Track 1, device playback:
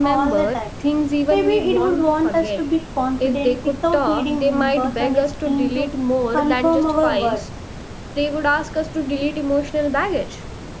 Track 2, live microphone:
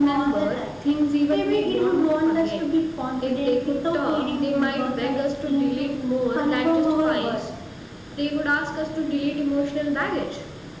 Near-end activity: none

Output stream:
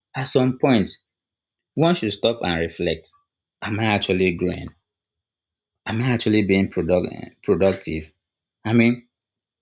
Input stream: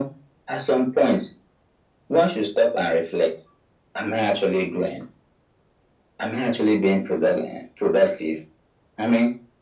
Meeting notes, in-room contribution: none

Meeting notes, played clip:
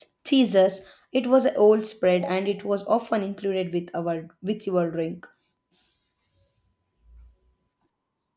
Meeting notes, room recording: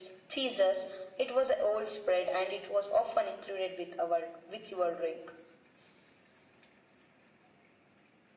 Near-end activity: none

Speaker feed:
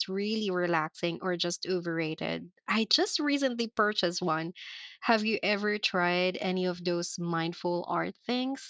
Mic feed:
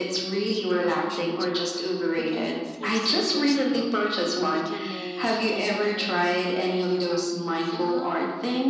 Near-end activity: present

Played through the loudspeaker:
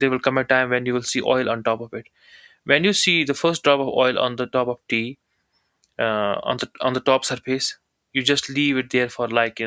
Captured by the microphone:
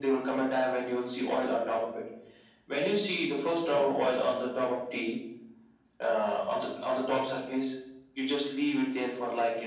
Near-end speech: present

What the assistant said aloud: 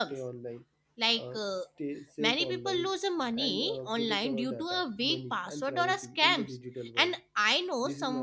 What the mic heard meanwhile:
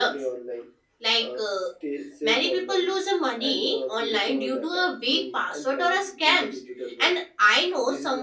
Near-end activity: none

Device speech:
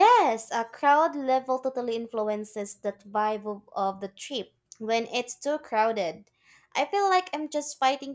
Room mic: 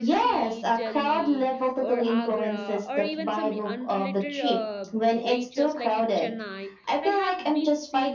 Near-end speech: present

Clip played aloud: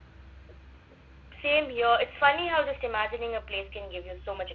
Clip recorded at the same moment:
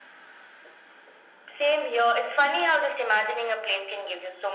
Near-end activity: none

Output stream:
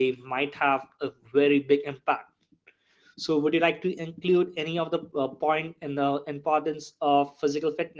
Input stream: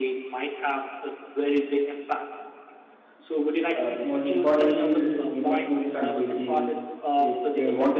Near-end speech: present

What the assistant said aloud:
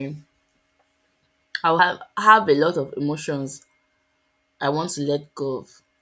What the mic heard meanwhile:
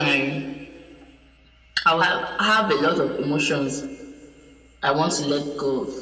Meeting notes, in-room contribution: none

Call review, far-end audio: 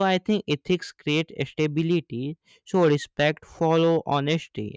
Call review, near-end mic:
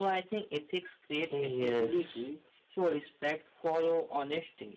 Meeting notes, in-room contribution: present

